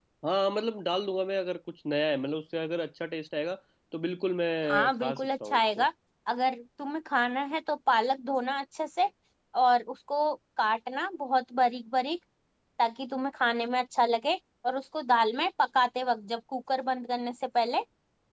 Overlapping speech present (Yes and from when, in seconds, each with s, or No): Yes, from 4.6 s